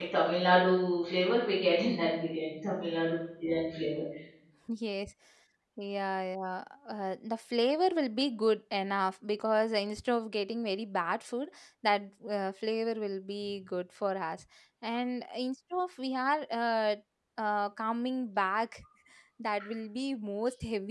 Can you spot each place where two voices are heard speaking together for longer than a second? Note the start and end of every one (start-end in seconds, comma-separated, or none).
none